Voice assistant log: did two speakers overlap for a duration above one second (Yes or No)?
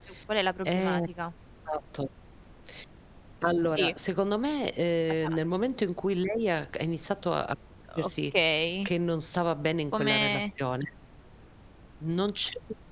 No